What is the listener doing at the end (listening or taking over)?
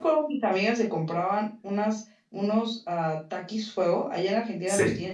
taking over